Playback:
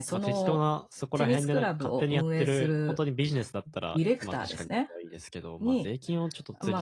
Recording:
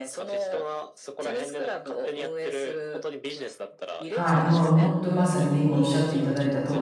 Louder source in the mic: user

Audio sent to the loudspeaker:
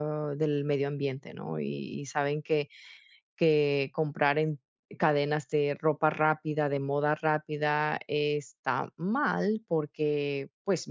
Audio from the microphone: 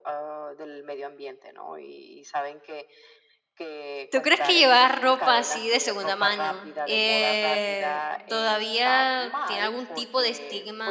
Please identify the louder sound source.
user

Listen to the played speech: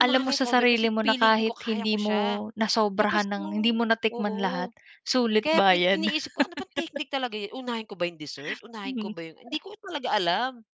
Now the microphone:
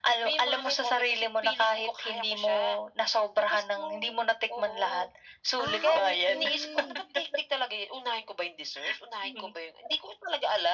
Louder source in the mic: echo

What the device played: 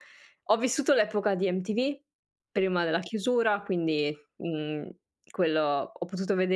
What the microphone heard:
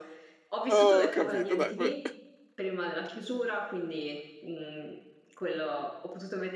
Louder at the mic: user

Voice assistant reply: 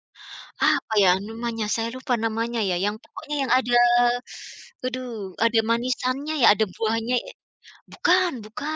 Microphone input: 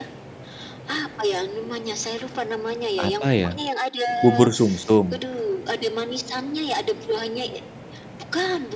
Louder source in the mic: user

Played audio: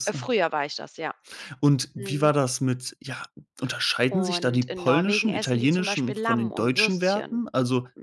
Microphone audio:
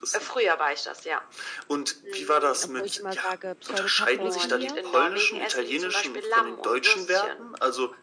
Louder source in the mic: echo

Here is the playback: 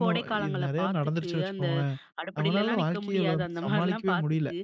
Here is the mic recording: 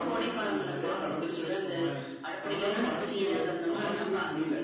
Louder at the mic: echo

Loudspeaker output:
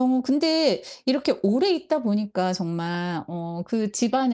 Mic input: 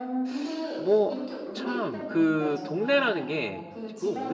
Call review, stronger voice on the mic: user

